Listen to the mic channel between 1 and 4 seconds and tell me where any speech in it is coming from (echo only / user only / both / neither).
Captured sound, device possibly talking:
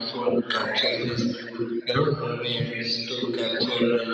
echo only